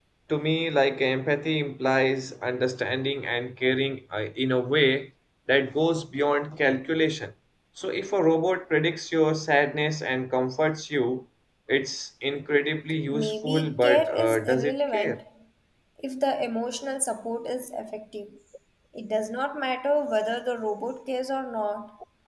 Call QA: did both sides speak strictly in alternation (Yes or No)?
No